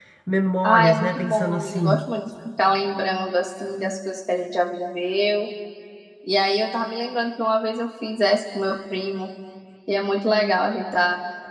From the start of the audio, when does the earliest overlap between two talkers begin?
0.6 s

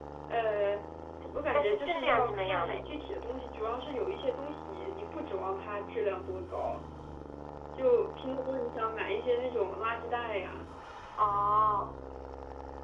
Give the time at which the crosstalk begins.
1.5 s

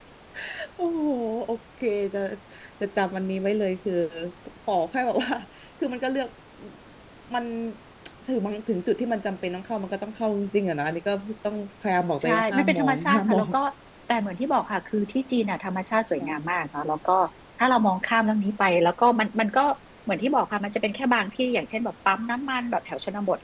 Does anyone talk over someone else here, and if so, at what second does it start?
12.2 s

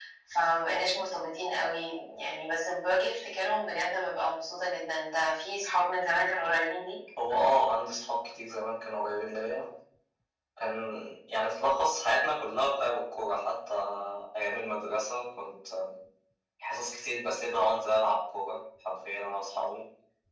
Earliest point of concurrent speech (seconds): none

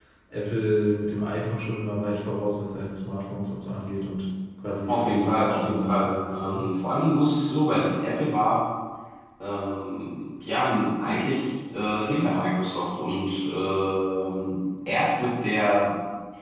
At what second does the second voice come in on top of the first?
4.9 s

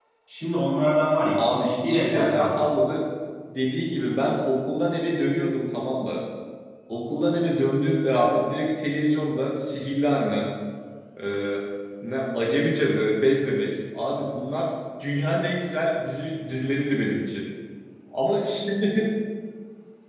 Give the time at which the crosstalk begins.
1.4 s

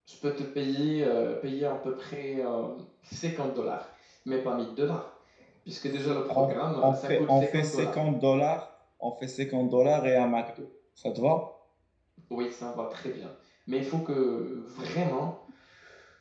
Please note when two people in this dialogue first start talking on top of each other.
6.1 s

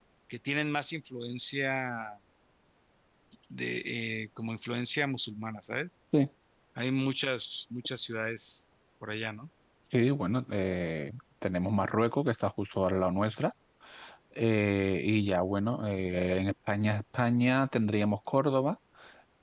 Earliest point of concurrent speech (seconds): none

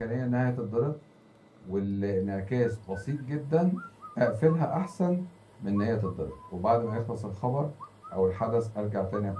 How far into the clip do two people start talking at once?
none

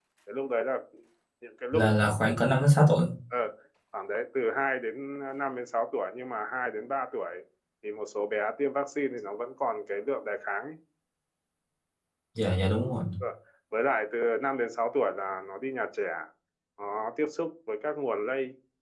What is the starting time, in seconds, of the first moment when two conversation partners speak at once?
none

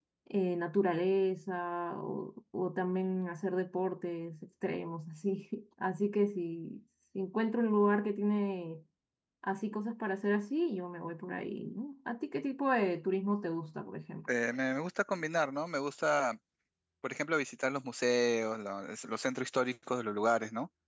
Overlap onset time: none

